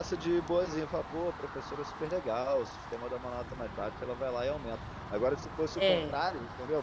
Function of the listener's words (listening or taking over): listening